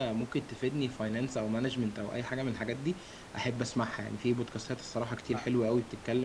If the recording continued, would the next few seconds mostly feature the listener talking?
No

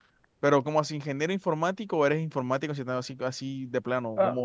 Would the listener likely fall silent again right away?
No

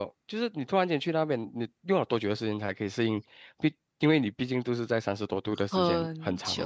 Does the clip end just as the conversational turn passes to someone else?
Yes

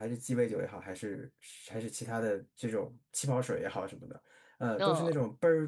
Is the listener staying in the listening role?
Yes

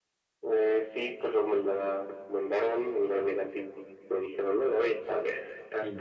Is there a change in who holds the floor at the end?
Yes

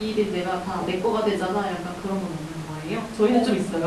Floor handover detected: Yes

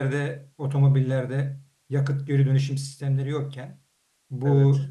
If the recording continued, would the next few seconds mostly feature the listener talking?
No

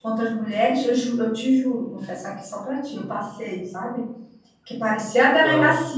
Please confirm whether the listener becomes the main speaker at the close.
No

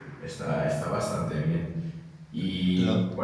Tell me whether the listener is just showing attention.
Yes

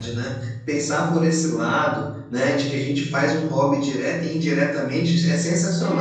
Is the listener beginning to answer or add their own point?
No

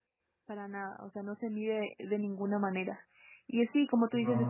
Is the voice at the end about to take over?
No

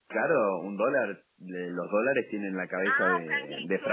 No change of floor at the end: No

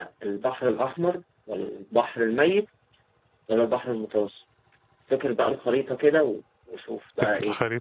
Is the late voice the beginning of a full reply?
Yes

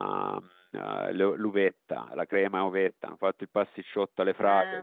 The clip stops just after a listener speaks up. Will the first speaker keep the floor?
Yes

